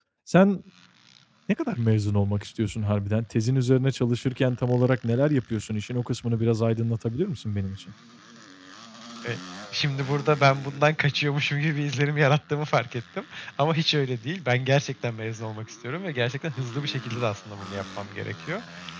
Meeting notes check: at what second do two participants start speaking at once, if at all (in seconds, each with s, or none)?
none